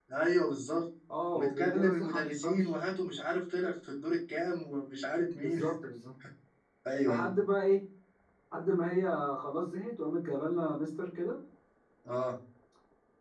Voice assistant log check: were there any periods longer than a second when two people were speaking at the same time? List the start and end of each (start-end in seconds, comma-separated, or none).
1.3-2.6